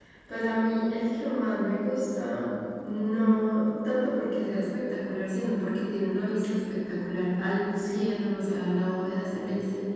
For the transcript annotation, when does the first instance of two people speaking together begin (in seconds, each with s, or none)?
none